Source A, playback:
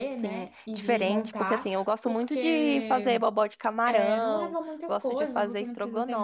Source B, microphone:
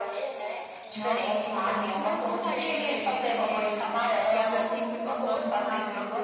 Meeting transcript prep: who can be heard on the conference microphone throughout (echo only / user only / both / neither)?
both